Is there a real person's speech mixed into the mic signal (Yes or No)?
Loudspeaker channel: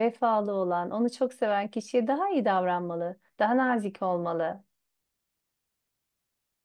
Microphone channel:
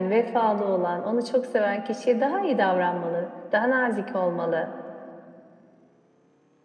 No